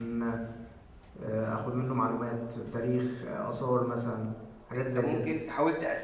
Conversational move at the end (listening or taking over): taking over